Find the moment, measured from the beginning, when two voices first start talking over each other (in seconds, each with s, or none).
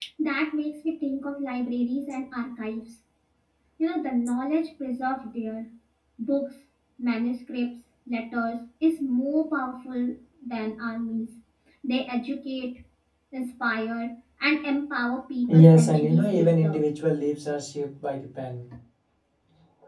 15.5 s